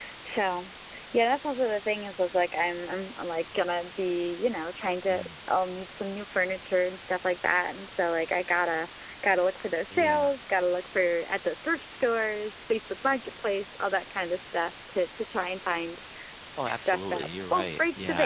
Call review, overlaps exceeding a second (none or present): present